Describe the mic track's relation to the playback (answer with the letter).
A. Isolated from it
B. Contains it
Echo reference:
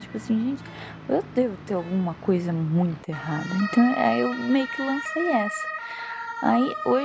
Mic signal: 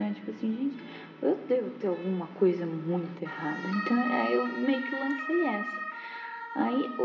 B